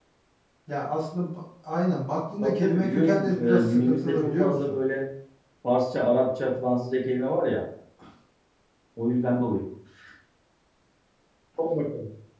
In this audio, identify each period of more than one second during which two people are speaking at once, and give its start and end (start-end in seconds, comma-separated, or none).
2.4-4.8